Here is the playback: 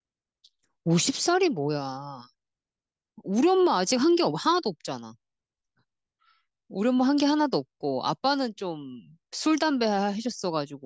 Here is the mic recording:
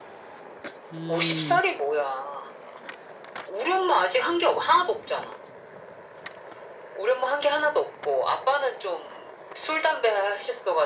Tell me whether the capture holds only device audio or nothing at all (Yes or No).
No